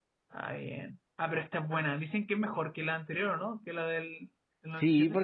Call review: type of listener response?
taking over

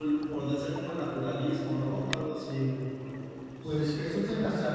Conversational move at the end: taking over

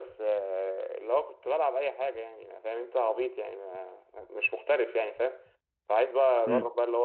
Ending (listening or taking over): listening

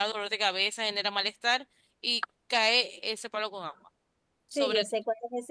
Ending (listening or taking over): taking over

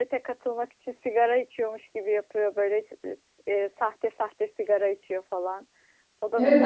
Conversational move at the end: taking over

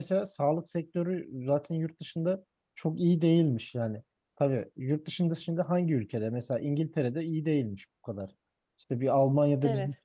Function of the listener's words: listening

